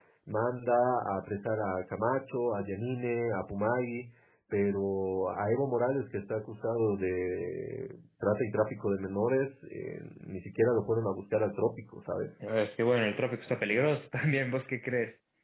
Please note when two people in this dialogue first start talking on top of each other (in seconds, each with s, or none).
none